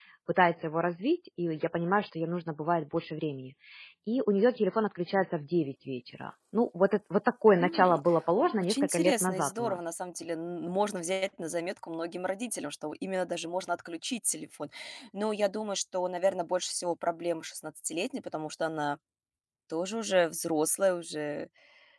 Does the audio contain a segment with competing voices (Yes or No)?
Yes